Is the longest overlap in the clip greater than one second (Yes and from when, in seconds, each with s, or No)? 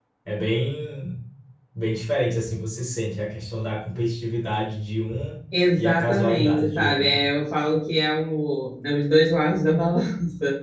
Yes, from 5.8 s